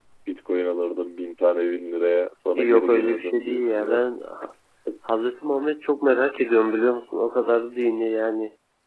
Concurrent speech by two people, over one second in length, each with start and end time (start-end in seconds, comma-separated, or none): 2.6-4.0